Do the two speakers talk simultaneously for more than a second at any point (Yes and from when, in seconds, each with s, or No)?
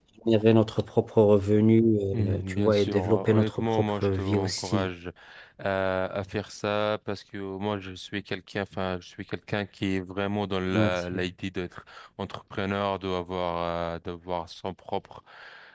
Yes, from 2.3 s